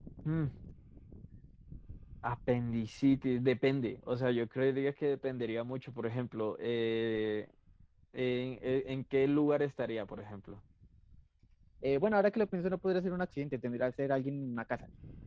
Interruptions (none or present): none